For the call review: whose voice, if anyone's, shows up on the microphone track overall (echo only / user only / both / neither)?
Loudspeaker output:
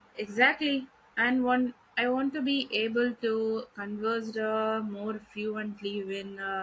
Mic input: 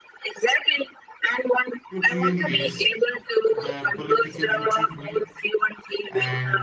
both